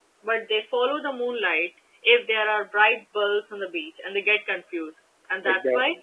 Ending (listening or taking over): listening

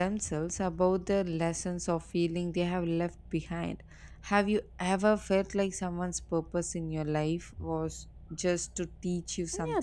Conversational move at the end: taking over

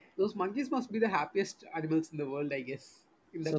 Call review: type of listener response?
taking over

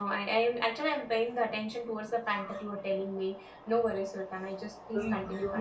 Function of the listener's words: taking over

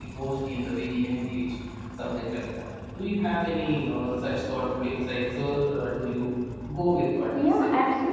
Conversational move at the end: taking over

